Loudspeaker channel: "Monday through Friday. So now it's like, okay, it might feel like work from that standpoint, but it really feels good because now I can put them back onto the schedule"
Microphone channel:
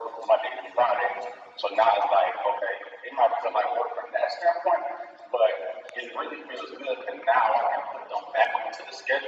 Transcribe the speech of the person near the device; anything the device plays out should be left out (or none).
none